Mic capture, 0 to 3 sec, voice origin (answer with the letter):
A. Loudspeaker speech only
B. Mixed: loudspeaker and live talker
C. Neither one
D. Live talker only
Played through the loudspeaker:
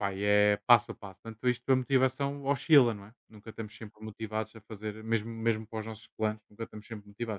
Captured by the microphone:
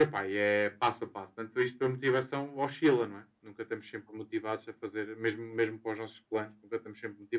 A